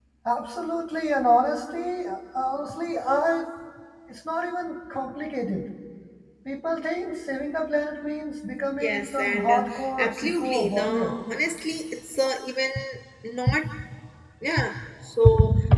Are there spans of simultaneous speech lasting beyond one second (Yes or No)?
Yes